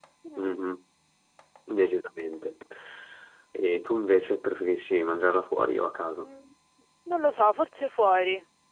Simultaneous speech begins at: none

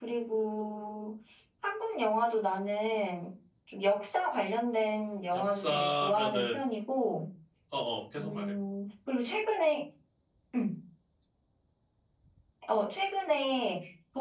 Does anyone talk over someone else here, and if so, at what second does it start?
5.3 s

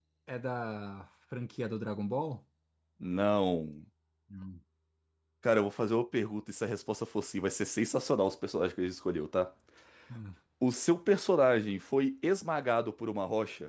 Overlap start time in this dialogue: none

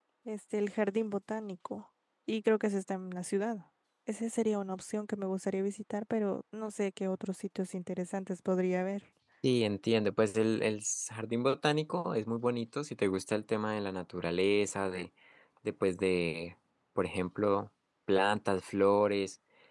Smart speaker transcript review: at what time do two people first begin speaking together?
none

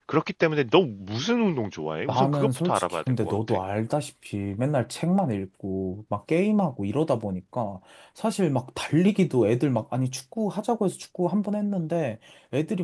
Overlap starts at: 2.1 s

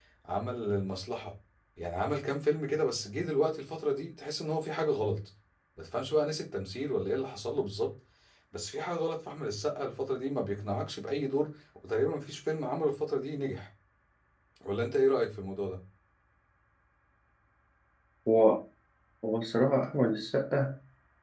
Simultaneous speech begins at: none

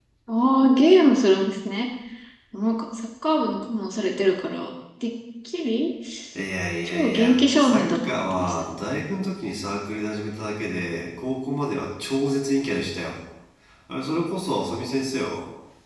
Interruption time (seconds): 6.9 s

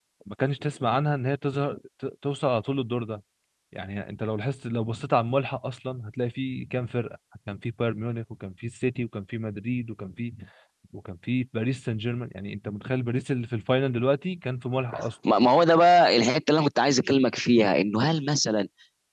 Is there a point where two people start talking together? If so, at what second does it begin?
none

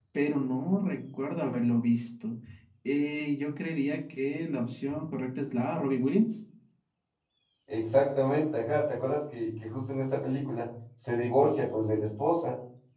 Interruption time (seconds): none

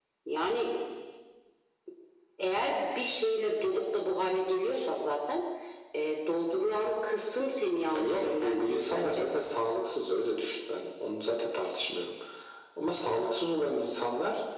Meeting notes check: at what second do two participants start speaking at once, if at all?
7.9 s

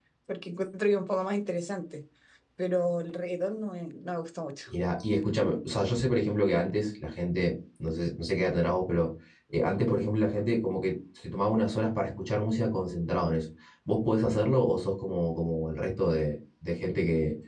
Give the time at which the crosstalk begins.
none

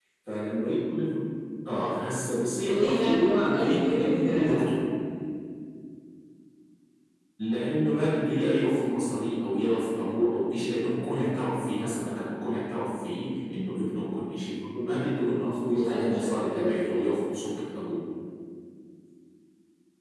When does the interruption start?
2.7 s

